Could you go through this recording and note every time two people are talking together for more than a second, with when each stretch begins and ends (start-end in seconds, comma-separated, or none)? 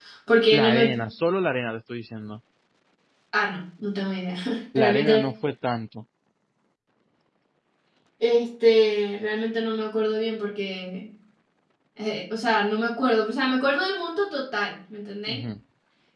none